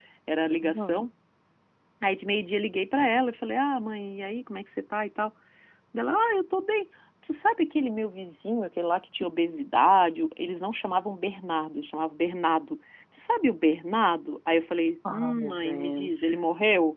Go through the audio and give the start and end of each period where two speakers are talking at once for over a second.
15.1-16.4

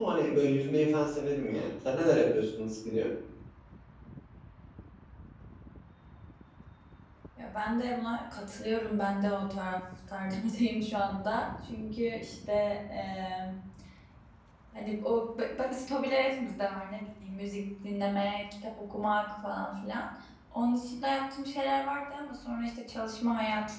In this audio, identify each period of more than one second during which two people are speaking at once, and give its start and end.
none

